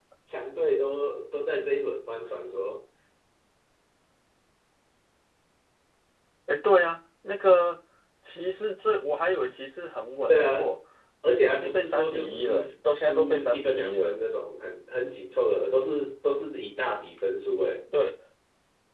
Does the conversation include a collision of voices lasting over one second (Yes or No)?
Yes